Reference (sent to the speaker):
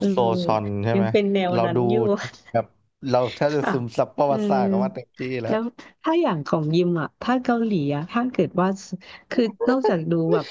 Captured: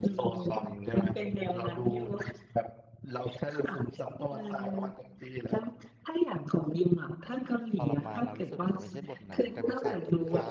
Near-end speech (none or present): present